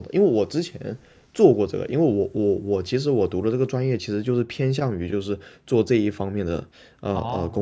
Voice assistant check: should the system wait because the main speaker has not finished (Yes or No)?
No